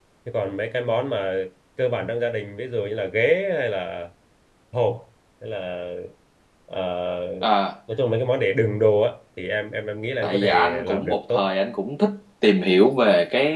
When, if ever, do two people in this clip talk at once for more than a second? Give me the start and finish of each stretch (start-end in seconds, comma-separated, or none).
10.2-11.5